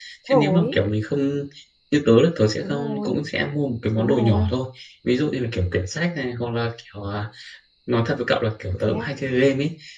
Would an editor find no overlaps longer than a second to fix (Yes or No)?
Yes